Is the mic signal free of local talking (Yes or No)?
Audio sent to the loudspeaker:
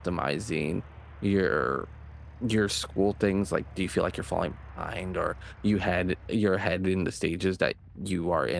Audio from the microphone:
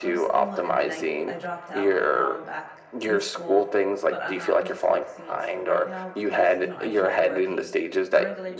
No